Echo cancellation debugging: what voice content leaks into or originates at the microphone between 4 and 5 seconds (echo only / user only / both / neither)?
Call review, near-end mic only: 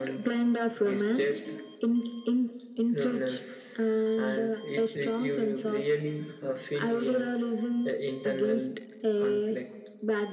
echo only